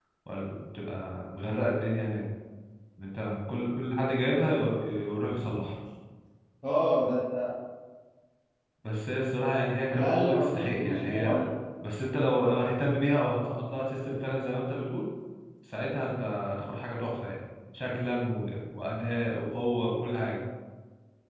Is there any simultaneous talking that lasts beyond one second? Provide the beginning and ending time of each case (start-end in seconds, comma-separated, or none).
9.9-11.4